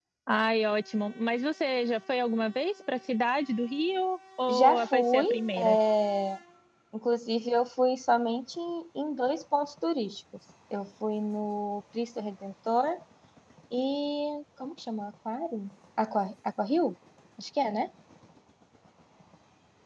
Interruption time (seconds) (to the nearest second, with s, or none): 4 s